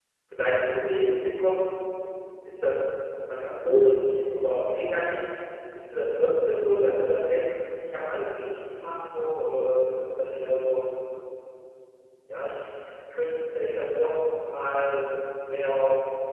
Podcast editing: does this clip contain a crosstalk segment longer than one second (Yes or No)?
No